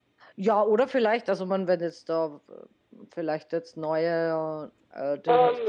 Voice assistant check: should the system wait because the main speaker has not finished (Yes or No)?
No